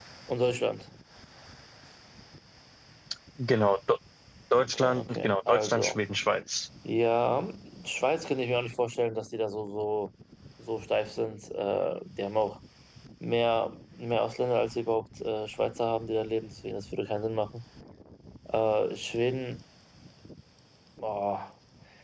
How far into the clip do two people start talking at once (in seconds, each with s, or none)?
4.6 s